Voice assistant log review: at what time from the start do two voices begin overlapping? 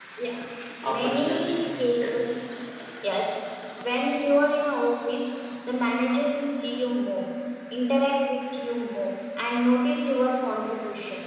1 s

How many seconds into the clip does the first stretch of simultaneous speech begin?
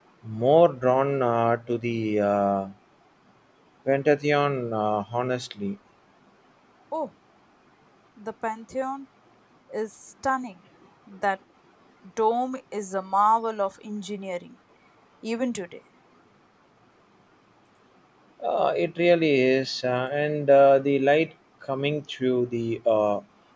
none

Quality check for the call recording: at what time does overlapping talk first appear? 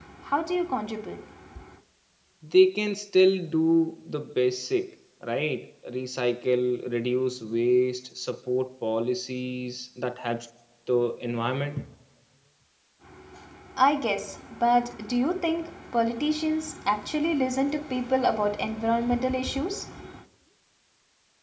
none

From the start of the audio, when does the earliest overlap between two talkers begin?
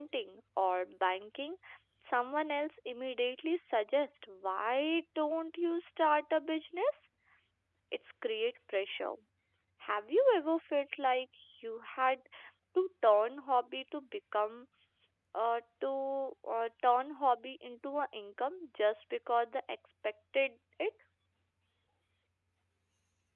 none

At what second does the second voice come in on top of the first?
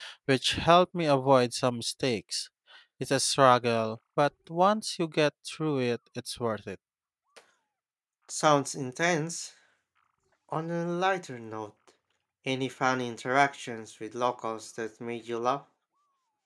none

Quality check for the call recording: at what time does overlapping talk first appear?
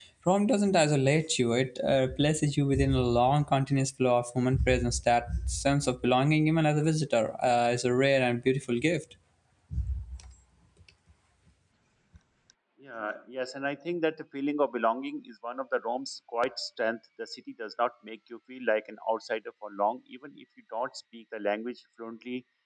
none

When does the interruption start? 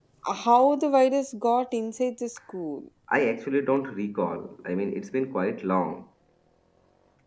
none

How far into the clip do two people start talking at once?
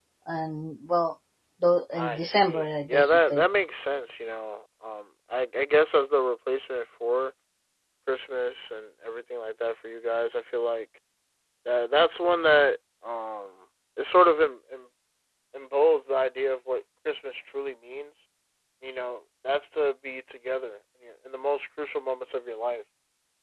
2 s

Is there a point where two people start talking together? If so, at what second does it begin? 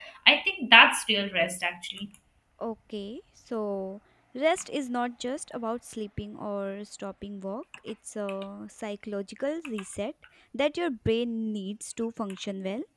none

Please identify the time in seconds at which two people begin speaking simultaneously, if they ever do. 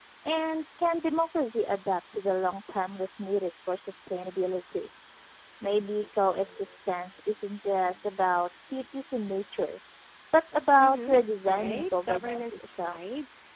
11 s

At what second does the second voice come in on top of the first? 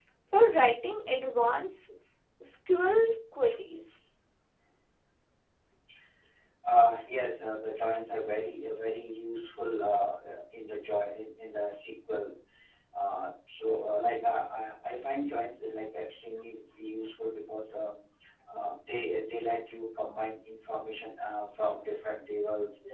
none

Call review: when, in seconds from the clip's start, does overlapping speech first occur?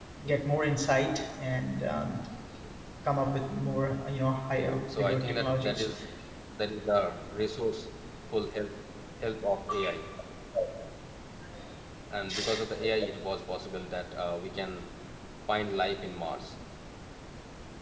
4 s

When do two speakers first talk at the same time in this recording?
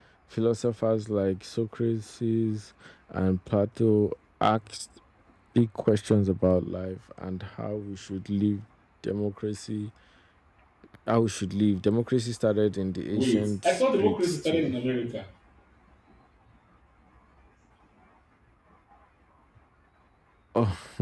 13 s

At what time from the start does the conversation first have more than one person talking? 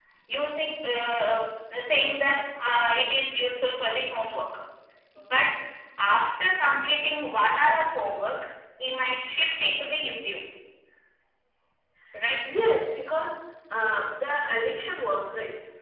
none

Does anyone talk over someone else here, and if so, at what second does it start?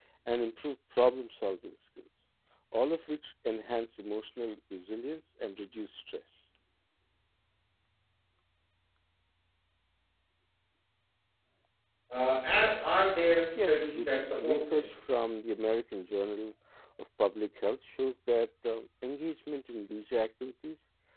14 s

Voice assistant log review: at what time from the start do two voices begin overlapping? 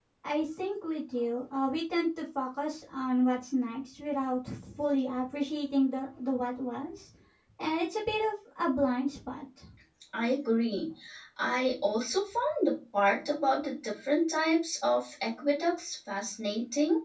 none

